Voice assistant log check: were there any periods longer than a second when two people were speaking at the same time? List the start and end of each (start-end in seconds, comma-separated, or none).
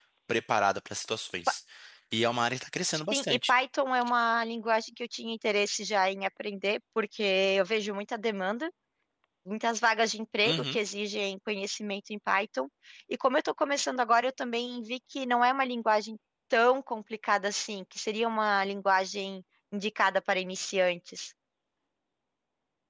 none